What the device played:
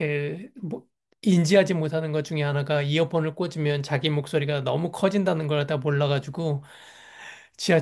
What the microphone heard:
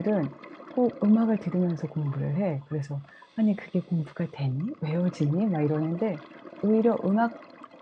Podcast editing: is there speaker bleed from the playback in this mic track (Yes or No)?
No